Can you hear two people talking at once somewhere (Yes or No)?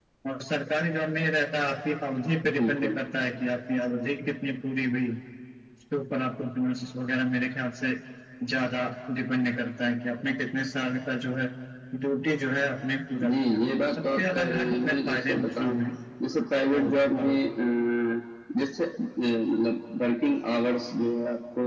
Yes